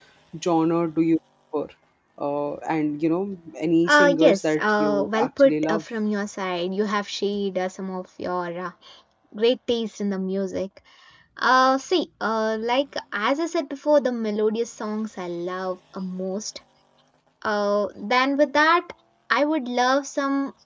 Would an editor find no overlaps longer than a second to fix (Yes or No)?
No